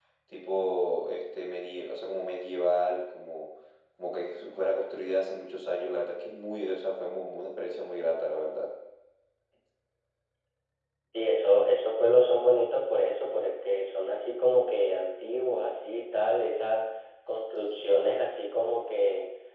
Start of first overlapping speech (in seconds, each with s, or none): none